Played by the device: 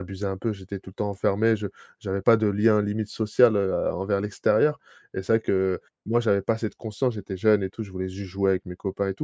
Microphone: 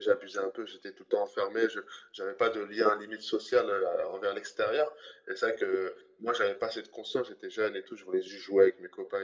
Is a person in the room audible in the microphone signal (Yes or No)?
No